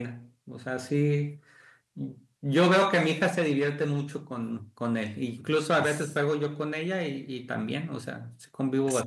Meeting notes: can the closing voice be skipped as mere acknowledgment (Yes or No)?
No